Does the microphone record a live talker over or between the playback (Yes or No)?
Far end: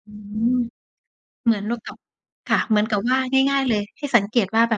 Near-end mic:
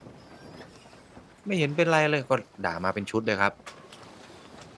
Yes